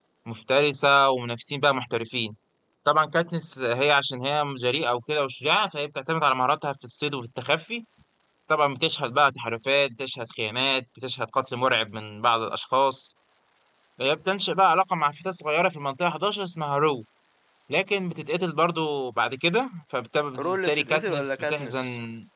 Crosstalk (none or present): present